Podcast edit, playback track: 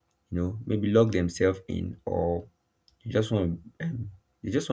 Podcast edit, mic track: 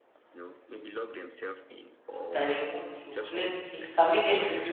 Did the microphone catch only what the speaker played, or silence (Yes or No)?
No